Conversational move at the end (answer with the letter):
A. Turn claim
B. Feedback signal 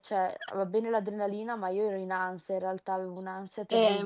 A